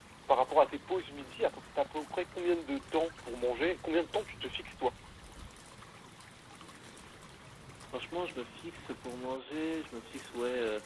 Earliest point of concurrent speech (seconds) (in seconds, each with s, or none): none